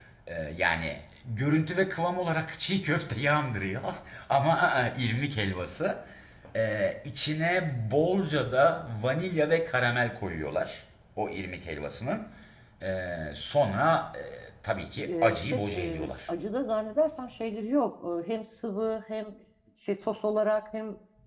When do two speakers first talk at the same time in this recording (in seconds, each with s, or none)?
14.8 s